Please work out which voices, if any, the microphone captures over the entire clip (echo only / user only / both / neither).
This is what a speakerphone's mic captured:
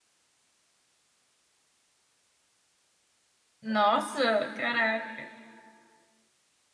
user only